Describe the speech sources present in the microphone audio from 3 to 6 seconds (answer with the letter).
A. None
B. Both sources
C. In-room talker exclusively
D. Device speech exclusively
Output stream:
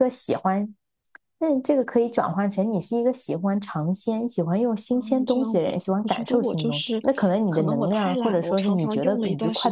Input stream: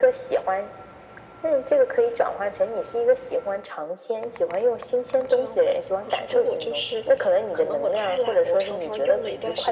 D